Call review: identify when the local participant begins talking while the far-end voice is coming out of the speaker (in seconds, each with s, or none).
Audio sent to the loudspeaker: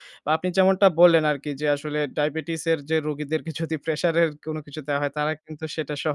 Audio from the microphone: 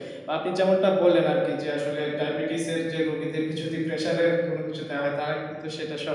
none